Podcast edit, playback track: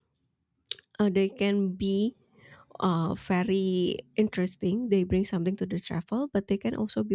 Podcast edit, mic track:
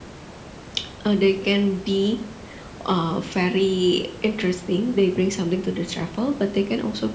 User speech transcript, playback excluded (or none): none